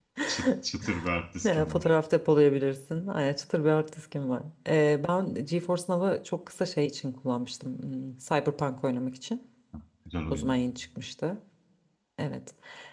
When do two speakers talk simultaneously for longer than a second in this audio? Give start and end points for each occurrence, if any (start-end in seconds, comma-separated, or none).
none